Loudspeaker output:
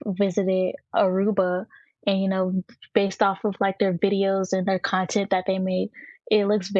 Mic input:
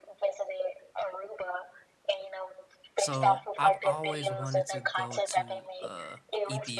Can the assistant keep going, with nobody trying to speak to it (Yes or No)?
No